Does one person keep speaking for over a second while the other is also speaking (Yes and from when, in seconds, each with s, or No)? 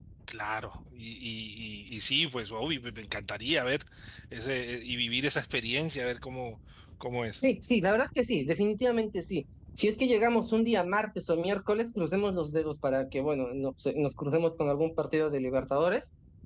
No